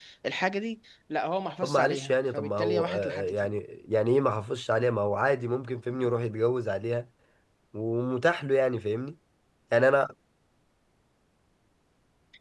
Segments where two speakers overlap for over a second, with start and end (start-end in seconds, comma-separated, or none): 1.6-3.5